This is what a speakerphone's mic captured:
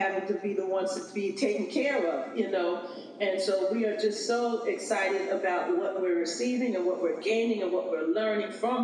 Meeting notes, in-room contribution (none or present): none